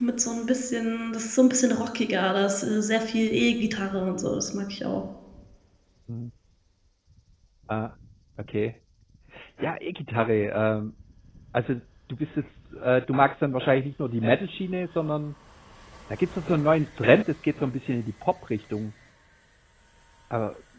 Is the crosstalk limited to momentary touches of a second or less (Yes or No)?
Yes